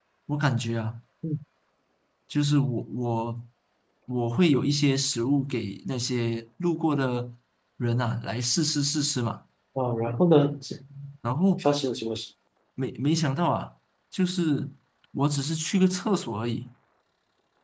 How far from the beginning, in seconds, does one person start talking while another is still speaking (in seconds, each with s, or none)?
none